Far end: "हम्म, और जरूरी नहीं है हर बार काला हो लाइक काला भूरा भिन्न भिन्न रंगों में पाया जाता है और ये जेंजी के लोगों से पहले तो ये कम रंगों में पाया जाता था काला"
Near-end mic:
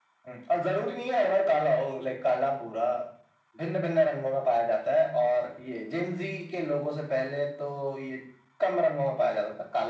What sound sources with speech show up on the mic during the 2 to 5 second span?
echo only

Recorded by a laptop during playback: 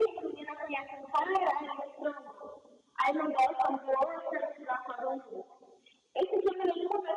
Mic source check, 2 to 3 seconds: echo only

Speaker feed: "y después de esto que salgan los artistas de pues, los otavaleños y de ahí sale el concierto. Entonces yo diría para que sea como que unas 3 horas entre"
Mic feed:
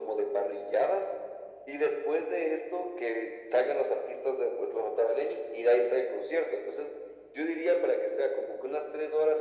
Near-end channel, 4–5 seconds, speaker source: echo only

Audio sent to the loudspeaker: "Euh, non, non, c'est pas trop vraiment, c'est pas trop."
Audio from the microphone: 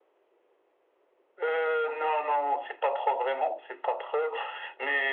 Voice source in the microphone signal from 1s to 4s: echo only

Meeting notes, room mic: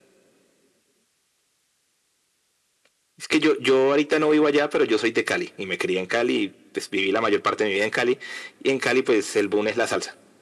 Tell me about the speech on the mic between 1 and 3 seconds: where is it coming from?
neither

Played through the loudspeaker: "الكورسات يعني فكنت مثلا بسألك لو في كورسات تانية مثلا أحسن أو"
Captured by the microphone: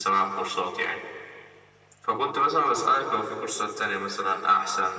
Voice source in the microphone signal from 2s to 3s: echo only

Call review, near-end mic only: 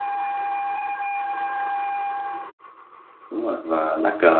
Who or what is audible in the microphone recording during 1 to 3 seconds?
neither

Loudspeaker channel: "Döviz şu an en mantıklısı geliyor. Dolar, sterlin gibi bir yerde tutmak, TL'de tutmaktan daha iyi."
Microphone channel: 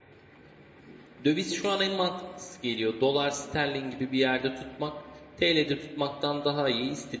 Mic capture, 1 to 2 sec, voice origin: both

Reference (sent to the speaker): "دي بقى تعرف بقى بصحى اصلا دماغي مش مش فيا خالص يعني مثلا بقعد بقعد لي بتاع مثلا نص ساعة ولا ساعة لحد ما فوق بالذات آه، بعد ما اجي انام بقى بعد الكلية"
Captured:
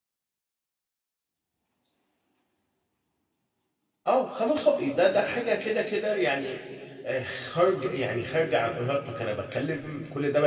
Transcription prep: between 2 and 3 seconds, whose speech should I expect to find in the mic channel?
neither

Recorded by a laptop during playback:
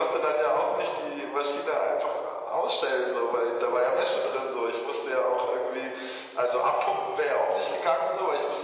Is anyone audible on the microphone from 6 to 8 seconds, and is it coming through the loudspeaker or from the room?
echo only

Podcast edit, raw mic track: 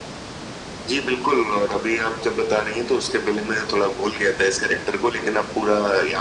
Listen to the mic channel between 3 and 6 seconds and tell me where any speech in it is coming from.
echo only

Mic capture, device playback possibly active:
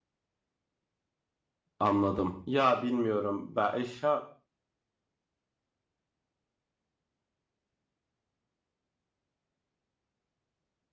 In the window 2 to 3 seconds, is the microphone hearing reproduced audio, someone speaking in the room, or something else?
user only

